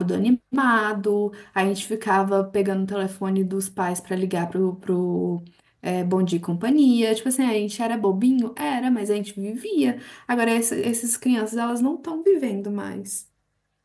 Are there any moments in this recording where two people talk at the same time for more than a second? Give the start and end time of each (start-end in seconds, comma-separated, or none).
none